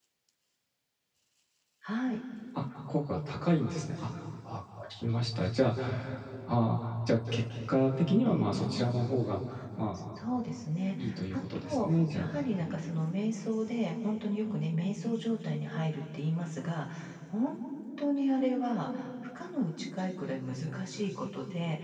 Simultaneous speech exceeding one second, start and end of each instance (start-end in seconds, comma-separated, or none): 11.0-12.3